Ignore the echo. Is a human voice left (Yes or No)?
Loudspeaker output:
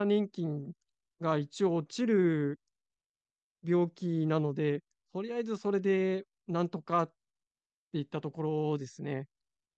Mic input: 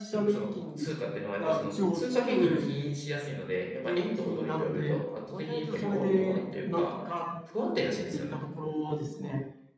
Yes